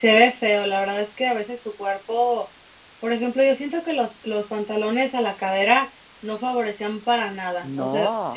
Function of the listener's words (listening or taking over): listening